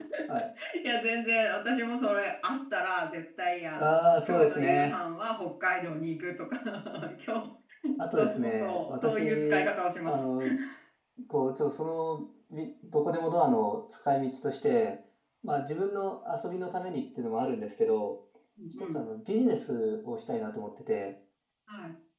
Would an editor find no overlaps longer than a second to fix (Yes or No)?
No